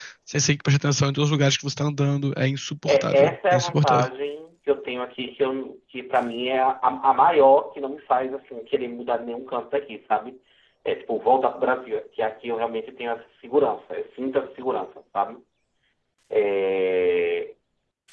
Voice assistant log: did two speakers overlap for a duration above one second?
Yes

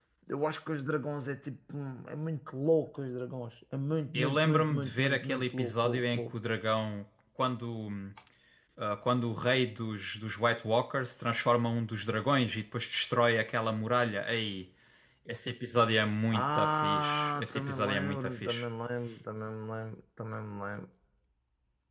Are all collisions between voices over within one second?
No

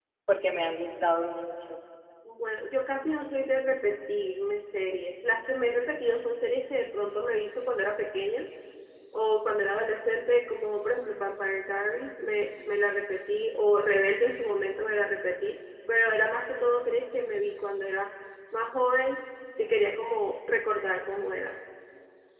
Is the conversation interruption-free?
Yes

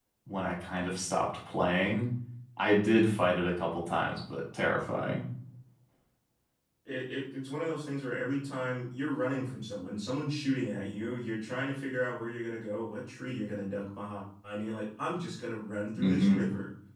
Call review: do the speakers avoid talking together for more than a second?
Yes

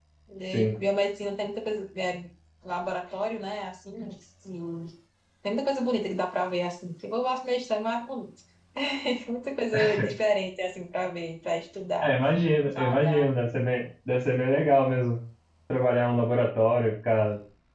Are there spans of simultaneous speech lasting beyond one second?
No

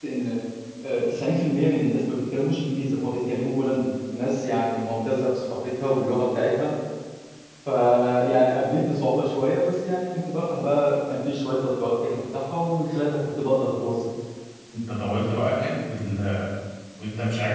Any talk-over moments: No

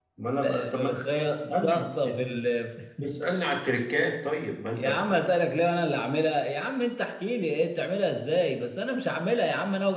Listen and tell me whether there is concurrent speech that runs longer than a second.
Yes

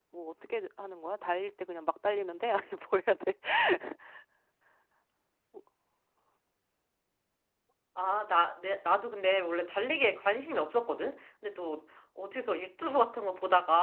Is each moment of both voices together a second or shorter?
Yes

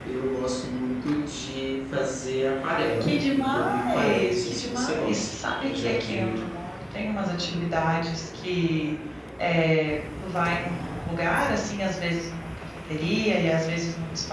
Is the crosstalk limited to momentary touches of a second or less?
No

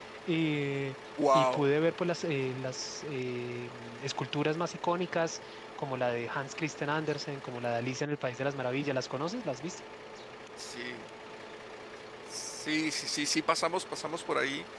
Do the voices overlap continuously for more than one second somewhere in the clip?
No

